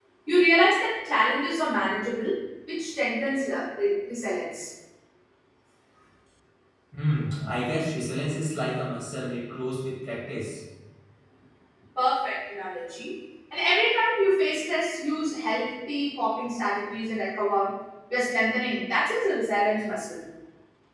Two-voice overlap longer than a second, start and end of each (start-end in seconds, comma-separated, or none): none